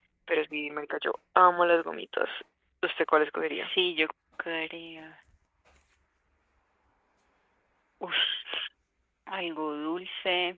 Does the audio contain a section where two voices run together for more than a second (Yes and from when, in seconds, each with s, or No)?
No